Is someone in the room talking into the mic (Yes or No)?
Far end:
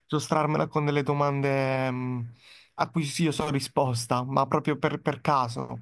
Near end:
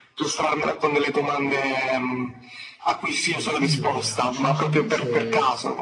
Yes